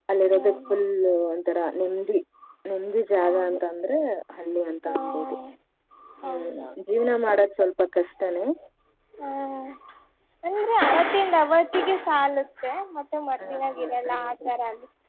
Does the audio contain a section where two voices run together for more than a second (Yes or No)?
Yes